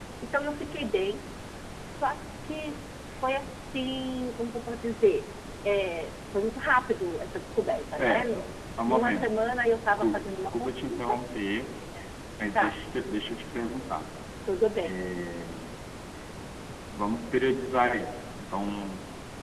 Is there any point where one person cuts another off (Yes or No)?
Yes